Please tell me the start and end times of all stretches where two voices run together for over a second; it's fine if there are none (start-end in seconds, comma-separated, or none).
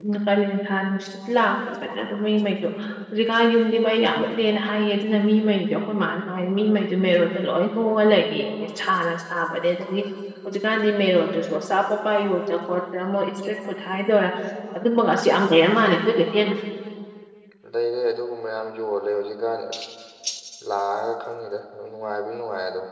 none